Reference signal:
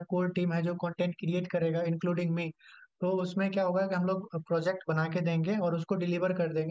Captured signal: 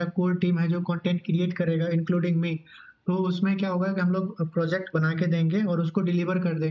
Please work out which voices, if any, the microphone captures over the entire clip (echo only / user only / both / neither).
echo only